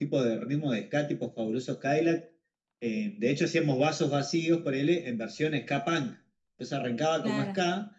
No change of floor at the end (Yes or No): Yes